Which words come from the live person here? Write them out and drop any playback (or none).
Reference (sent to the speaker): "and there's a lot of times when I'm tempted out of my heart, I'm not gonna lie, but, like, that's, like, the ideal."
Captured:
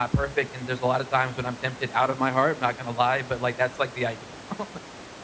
none